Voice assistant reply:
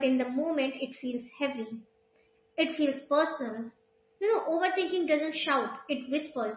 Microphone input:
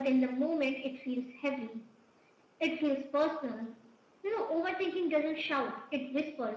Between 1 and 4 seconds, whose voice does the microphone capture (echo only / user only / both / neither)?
echo only